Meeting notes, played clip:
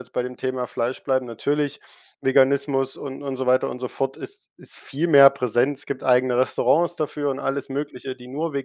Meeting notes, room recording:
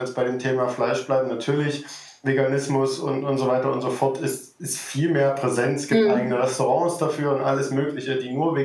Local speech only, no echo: mhm,

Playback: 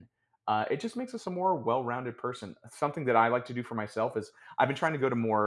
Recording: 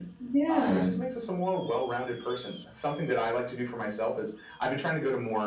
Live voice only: yeah.

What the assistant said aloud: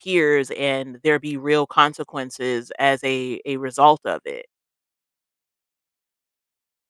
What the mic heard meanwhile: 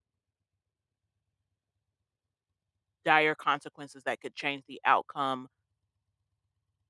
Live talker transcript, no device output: dire consequences that could change the outcome

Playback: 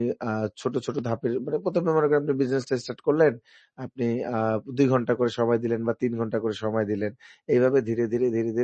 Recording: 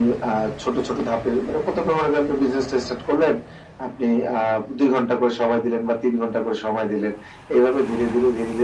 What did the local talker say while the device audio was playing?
none

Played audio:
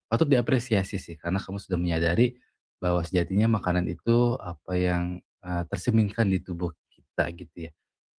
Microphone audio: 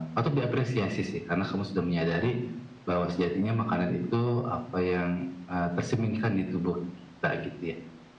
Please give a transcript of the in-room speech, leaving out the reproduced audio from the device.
none

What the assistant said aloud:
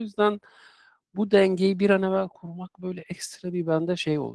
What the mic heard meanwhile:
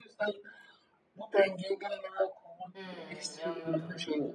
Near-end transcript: Hımm, anladım.

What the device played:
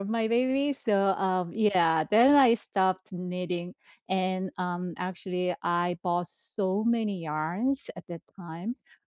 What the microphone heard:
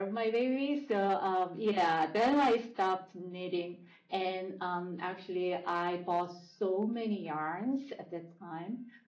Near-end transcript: none

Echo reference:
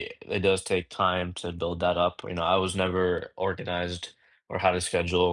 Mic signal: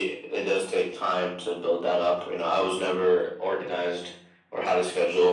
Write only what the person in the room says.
none

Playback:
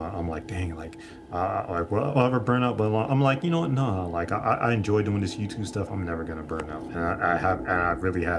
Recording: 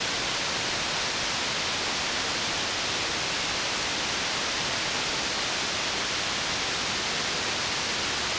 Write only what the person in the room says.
none

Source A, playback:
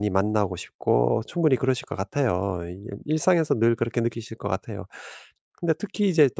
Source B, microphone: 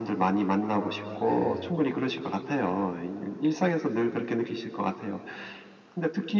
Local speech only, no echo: 아 네.

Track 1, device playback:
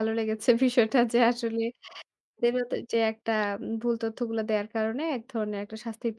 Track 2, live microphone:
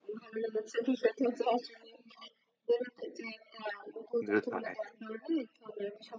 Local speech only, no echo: দ্রুত হয়।

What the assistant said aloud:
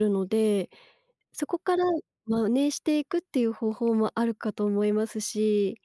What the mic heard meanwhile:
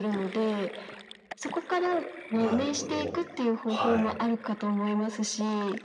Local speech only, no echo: なるほど。はい。

